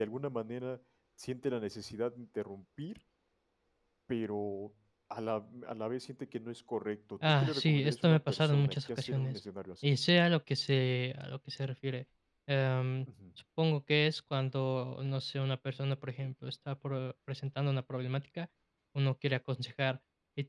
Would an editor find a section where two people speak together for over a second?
Yes, from 7.2 s

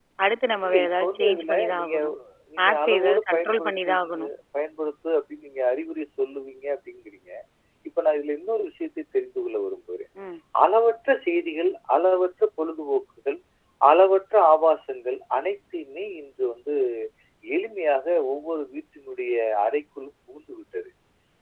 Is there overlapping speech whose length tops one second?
Yes, from 0.7 s

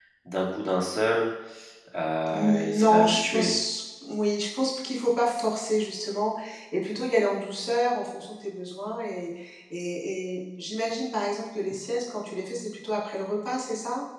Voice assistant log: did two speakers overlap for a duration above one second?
Yes, from 2.3 s

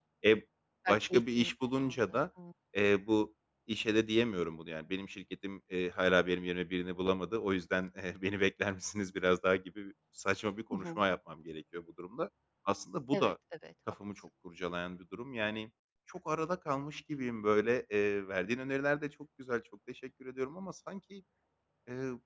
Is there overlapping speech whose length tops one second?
Yes, from 0.9 s

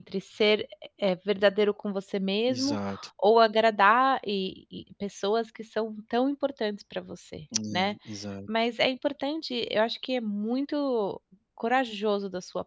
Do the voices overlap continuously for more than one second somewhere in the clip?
No

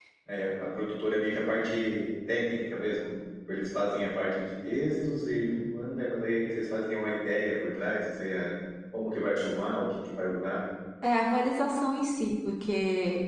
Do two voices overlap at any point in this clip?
No

